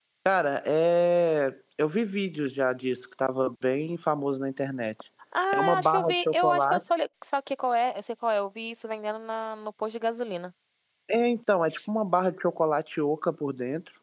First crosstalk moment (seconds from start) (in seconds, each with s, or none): 5.5 s